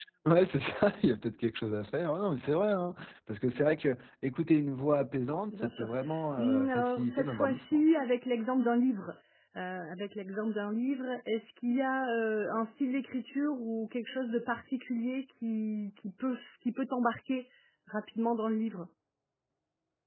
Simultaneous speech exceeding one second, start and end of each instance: 6.4-7.8

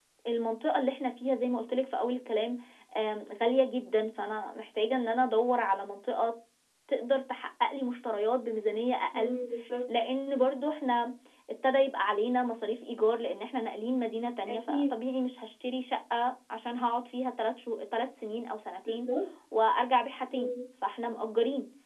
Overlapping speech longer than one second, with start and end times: none

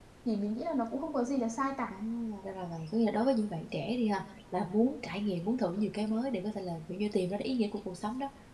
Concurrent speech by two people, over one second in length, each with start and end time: none

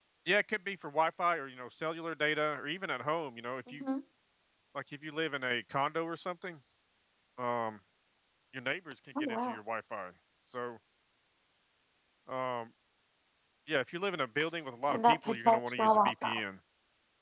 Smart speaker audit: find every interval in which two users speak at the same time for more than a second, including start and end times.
14.9-16.4

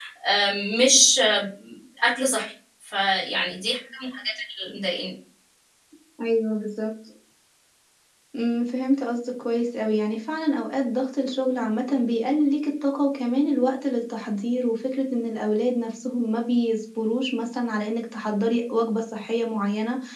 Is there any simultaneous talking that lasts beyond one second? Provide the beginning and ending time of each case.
none

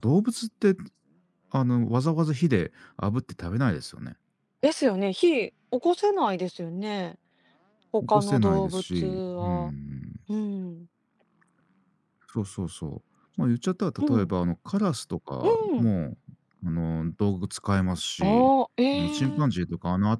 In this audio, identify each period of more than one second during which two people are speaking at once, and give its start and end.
8.0-9.7

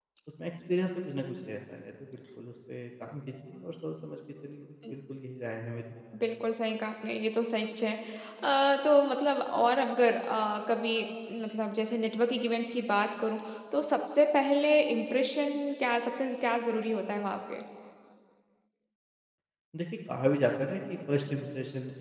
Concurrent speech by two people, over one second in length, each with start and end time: none

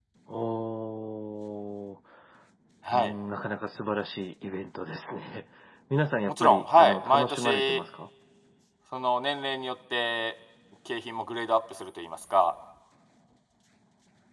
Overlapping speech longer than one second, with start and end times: 6.3-7.8

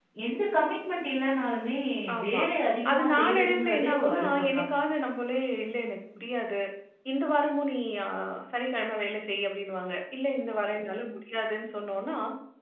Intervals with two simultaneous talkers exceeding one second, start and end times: 2.9-4.6

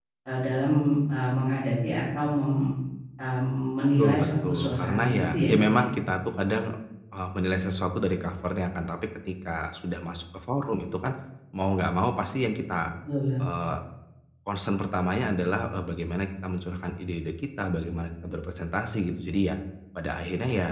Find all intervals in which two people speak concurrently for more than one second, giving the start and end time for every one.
4.0-5.8

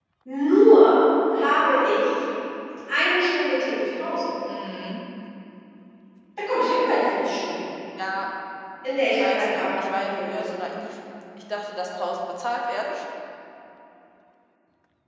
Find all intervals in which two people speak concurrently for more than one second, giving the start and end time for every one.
9.2-10.5

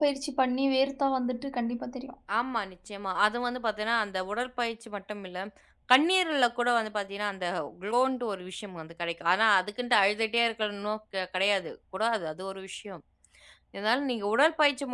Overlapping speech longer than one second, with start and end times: none

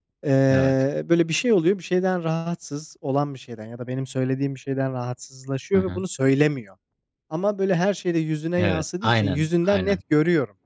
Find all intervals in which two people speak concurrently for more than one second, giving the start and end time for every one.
8.6-10.0

